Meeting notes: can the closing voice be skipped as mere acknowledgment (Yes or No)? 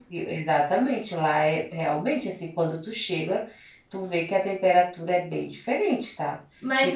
No